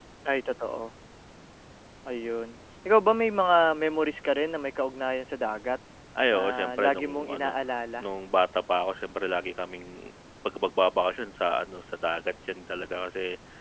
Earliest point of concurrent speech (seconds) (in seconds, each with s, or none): 6.3 s